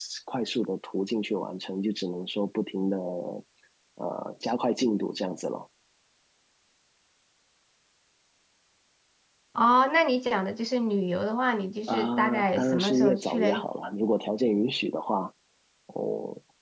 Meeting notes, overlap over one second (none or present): present